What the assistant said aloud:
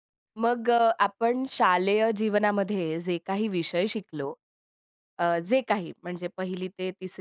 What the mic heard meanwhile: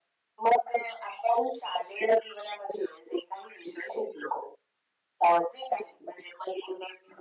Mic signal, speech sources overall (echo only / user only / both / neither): echo only